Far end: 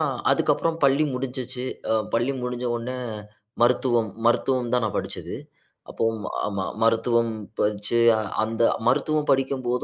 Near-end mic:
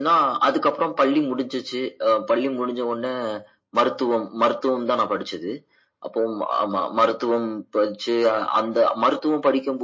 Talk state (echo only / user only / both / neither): echo only